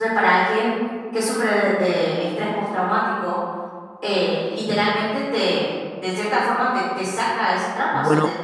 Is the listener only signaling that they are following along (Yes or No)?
No